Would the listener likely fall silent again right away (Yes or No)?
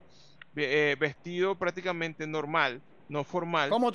No